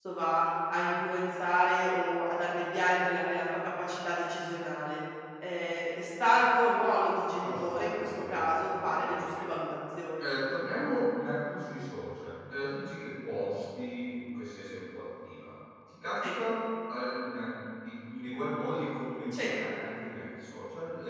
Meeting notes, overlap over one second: present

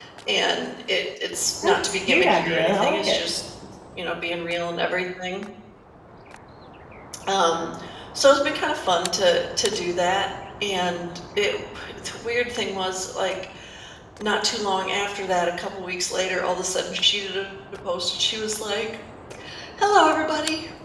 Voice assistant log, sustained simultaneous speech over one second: present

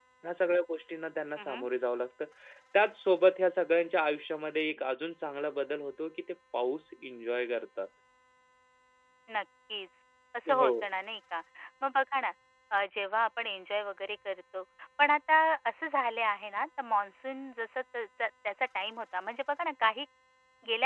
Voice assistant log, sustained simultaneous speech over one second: none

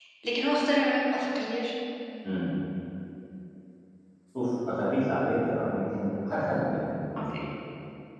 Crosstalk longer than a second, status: none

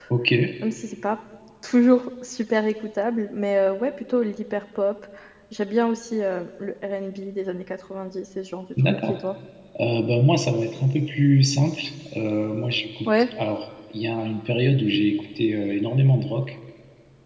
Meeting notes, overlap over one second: none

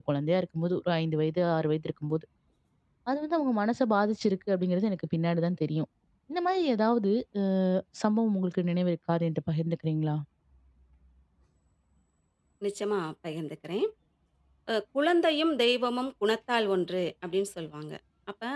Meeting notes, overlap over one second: none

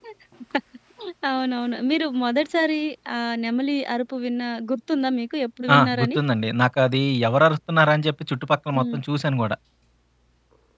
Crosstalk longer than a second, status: none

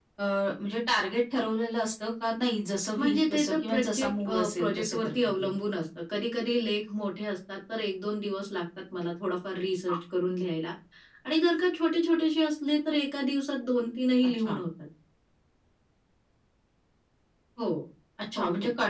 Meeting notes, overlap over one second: present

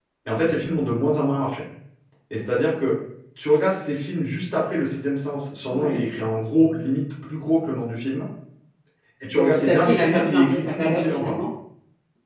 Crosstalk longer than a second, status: present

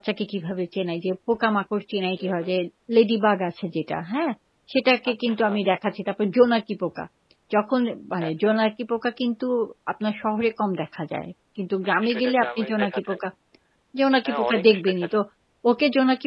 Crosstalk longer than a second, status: present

